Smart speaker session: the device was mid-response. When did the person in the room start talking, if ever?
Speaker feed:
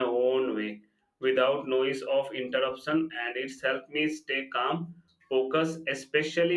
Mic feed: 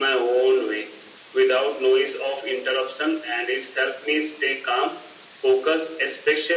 none

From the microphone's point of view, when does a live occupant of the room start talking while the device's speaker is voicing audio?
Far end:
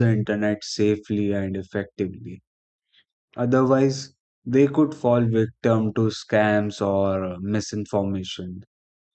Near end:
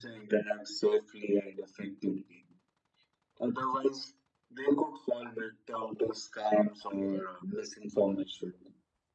none

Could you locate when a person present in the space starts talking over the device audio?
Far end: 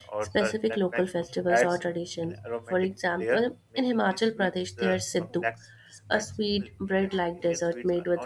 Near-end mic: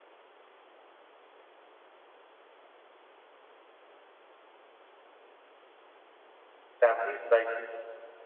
7 s

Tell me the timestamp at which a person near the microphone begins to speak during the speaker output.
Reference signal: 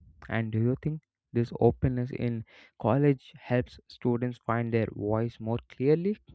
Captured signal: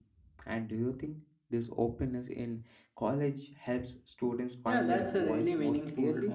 5 s

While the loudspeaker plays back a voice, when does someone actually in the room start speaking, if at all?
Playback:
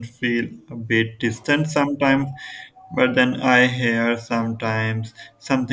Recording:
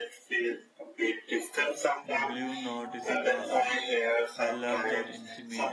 2 s

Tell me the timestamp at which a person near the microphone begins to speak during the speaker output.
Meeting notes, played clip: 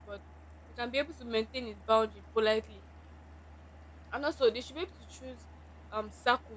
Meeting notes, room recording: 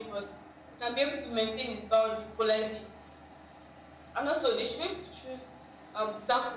none

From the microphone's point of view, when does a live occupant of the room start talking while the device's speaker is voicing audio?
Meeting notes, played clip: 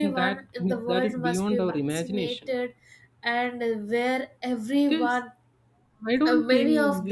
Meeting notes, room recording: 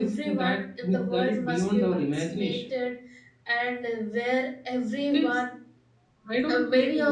none

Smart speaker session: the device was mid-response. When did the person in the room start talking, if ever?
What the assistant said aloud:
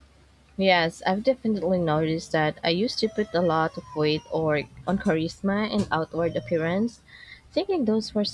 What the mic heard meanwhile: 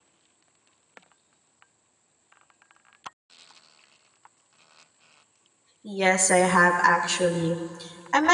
6 s

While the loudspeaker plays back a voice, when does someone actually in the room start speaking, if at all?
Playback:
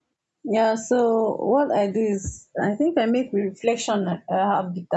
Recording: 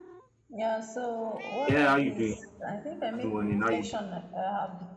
2 s

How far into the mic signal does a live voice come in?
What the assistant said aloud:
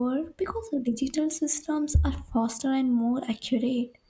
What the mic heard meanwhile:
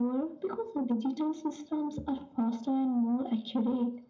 none

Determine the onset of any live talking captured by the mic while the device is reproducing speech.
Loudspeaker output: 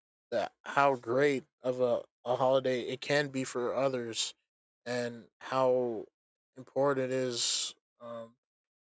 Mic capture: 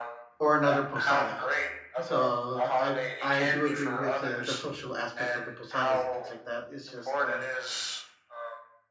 0 s

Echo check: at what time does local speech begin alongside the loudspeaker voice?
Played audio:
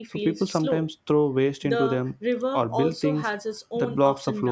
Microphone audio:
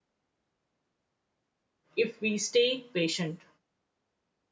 2 s

